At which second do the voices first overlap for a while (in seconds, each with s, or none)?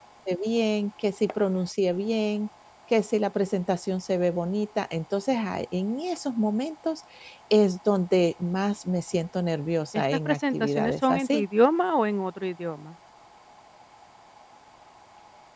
9.9 s